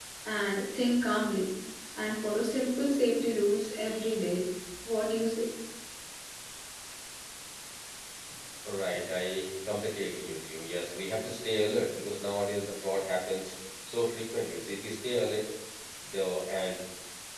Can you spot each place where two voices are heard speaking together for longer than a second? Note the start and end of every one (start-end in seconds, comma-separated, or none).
none